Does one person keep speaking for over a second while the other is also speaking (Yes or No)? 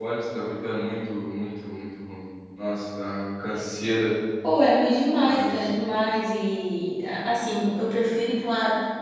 No